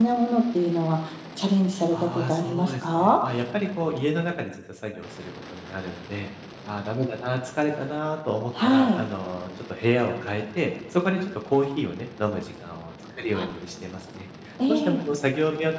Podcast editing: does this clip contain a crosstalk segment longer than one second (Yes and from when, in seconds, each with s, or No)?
Yes, from 1.9 s